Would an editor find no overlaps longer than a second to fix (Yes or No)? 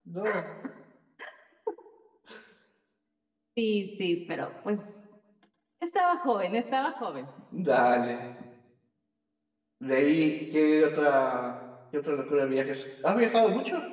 Yes